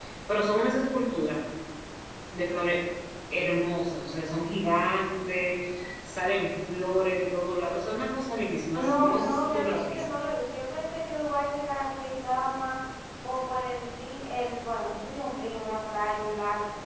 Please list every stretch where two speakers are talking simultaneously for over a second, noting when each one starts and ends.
8.7-10.0

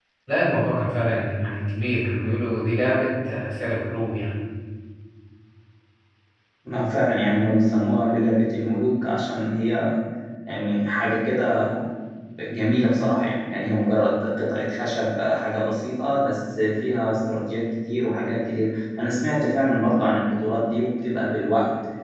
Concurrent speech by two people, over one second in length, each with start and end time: none

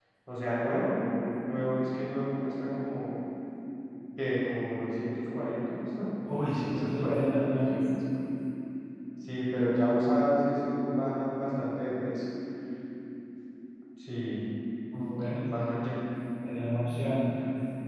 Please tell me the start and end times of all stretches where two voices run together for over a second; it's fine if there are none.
6.4-7.8

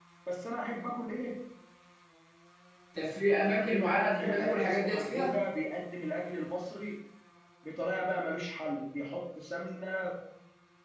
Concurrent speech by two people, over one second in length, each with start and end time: 3.4-5.4

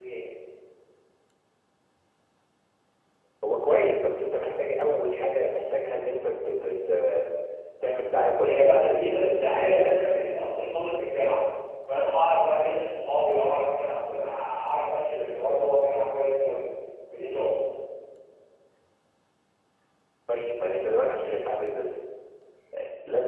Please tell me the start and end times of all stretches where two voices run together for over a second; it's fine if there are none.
8.4-10.0

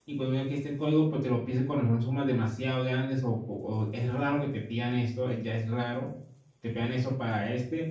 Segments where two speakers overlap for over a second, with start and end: none

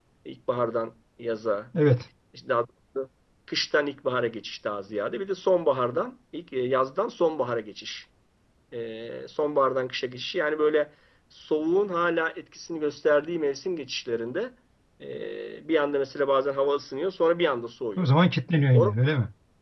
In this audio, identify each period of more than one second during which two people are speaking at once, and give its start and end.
none

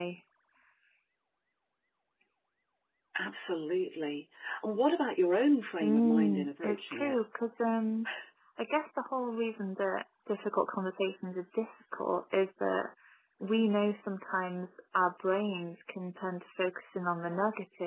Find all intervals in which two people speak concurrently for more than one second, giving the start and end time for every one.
5.8-7.2

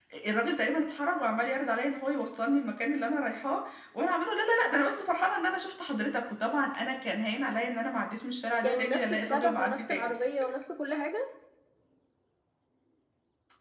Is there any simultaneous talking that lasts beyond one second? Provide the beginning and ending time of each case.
8.6-10.1

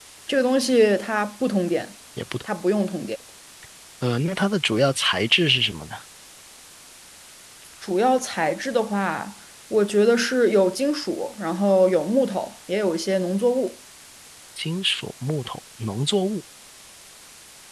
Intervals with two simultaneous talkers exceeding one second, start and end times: none

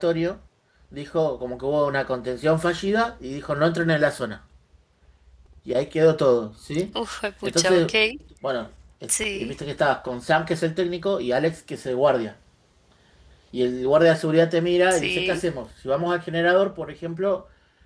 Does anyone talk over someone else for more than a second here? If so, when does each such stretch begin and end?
none

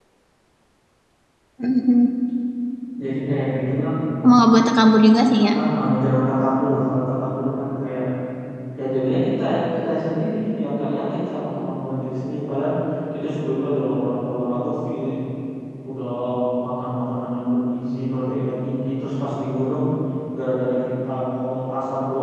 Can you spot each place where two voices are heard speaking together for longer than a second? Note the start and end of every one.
none

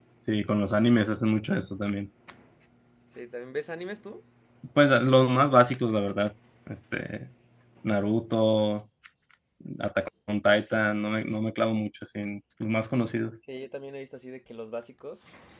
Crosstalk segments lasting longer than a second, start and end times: none

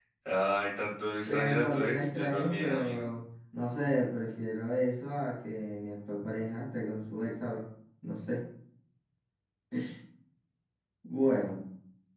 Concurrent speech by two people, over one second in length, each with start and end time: 1.3-3.1

